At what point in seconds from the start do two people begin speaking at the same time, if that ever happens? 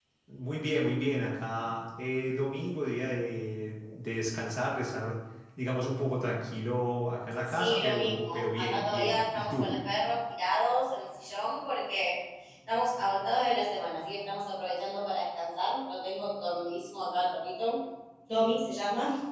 7.5 s

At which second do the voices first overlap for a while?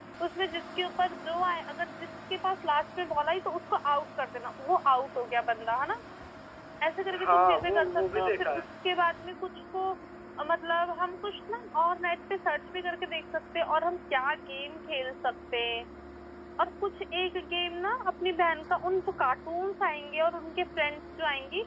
7.2 s

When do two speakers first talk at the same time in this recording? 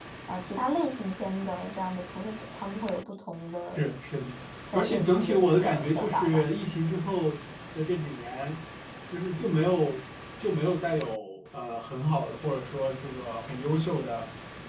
4.7 s

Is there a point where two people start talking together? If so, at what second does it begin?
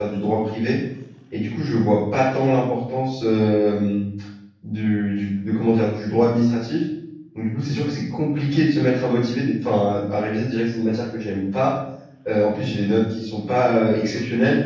none

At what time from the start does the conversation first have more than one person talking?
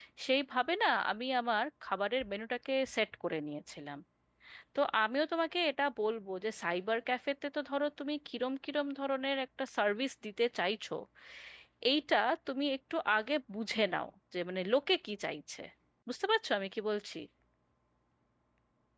none

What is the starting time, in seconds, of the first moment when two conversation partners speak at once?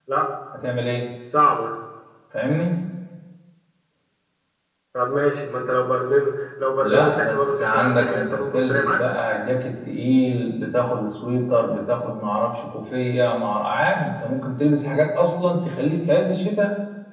6.8 s

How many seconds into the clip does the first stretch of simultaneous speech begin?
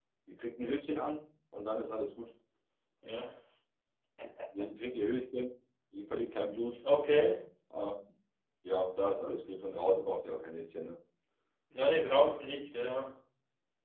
none

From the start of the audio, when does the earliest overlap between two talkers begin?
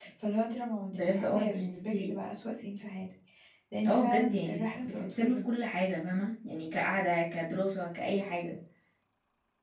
0.9 s

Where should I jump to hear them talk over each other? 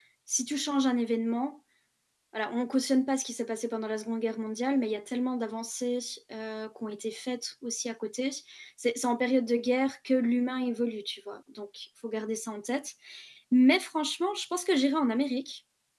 none

